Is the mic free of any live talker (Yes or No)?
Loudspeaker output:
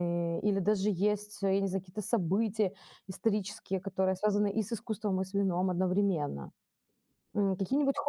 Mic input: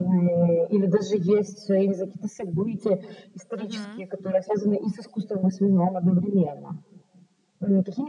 No